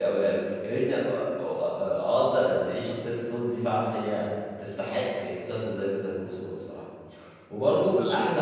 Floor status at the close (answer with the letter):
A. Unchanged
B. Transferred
A